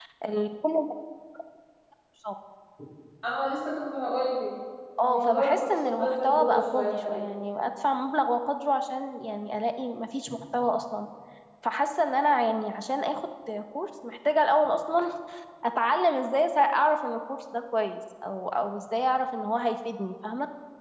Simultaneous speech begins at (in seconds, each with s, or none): 5.0 s